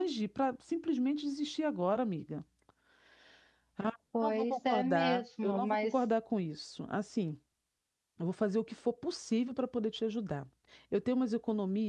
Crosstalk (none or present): present